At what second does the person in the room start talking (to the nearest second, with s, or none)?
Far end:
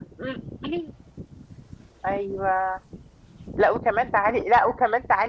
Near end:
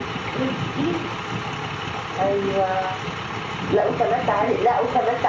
none